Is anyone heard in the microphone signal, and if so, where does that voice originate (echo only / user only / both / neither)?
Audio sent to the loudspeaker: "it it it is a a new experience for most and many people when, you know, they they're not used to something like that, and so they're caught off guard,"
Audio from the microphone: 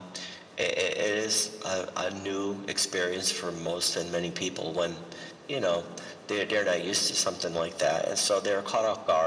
echo only